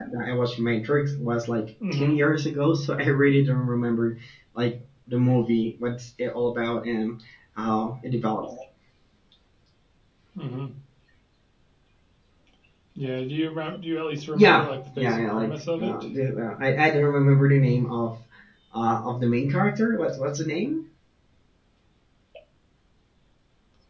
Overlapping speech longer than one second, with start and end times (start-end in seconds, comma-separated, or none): 14.3-15.9